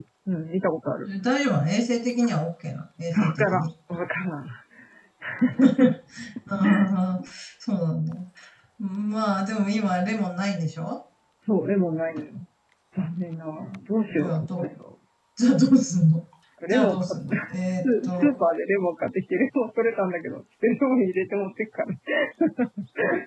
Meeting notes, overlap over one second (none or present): present